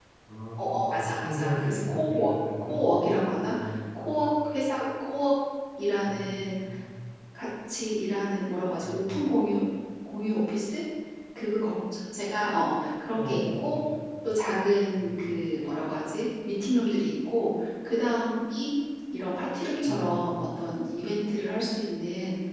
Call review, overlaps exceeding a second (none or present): present